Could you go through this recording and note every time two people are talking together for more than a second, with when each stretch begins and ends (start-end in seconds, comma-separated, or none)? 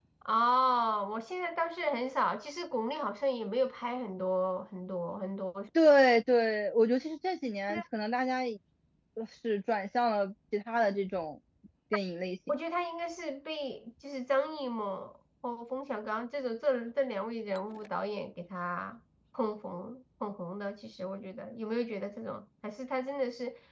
none